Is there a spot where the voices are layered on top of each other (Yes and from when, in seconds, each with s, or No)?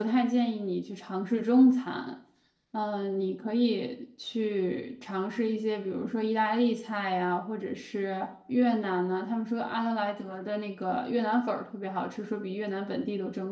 No